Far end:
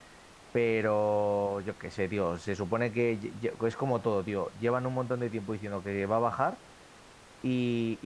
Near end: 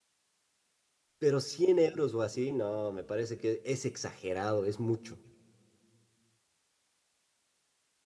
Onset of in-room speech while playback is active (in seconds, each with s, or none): 1.2 s